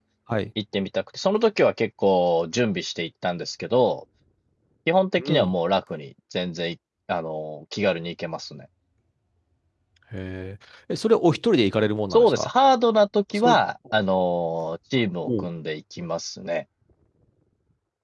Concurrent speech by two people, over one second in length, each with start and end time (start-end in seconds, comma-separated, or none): none